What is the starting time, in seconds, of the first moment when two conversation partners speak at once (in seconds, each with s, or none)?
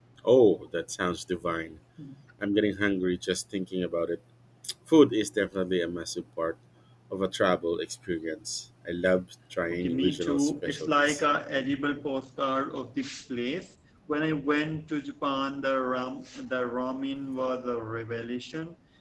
9.7 s